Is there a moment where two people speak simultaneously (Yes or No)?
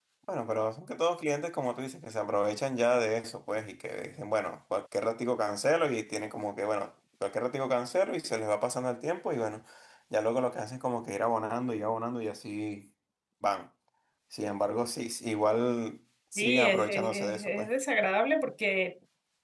Yes